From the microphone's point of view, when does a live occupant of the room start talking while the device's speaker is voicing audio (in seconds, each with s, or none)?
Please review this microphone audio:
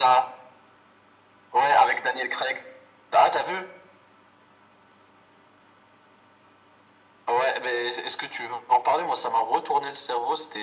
none